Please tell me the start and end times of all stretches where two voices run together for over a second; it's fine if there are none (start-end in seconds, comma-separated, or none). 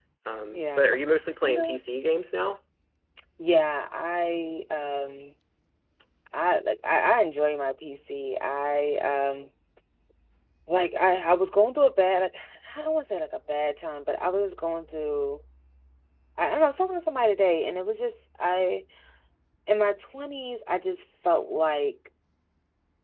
0.5-1.8